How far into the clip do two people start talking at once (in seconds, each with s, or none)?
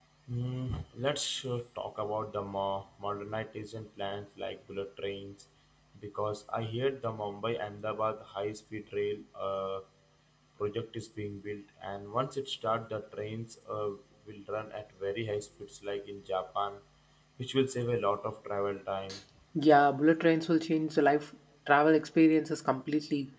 none